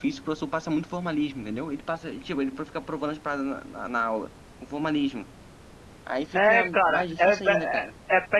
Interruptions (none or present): present